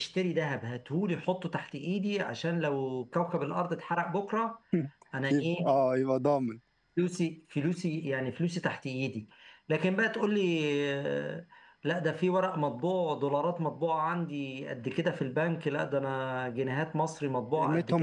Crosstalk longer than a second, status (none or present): none